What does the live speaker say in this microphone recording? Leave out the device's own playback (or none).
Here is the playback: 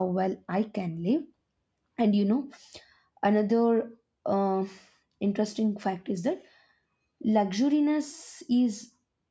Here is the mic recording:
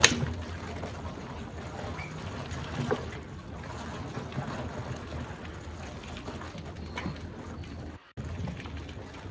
none